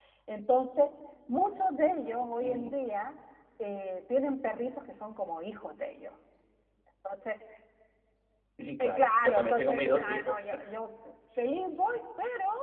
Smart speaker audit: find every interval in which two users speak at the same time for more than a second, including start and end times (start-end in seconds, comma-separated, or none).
8.8-10.3